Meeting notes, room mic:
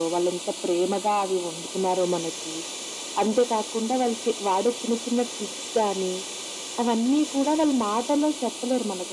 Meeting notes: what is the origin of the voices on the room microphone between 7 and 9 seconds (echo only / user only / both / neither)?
echo only